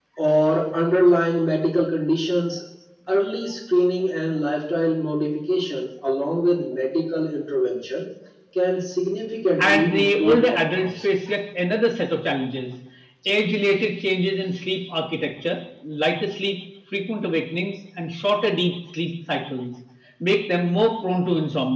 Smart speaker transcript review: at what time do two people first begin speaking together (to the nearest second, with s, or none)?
10 s